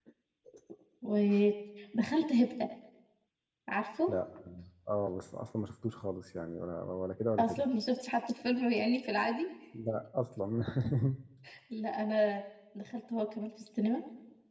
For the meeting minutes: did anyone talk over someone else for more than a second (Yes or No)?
No